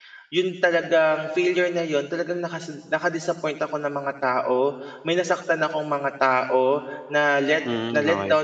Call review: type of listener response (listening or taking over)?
listening